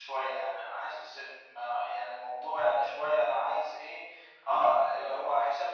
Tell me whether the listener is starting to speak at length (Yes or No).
No